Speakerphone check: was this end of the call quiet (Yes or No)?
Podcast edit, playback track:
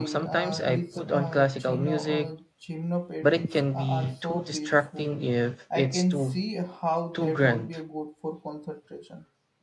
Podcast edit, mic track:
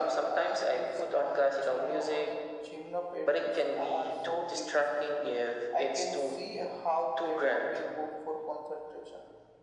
Yes